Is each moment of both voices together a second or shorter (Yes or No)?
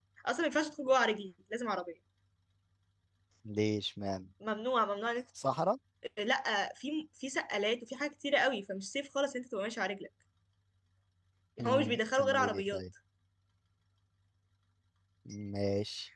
No